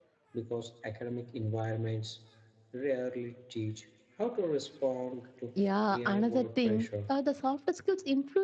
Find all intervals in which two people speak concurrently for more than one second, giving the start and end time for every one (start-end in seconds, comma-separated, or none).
5.9-7.1